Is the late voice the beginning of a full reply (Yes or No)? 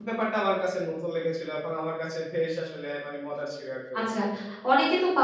Yes